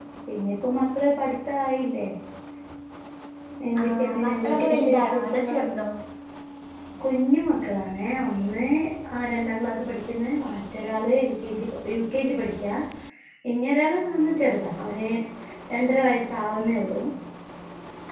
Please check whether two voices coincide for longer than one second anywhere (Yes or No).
Yes